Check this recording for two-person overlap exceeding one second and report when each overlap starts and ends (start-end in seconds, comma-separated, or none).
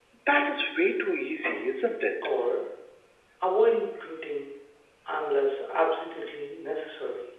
none